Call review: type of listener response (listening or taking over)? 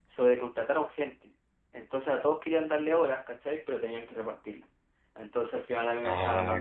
listening